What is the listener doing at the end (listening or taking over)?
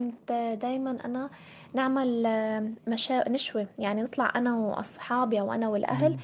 listening